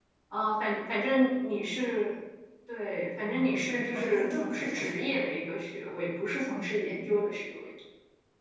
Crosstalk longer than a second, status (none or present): present